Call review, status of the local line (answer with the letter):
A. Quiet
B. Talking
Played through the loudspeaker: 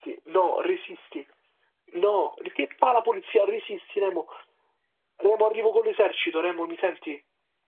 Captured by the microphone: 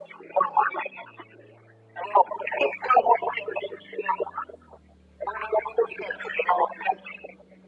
A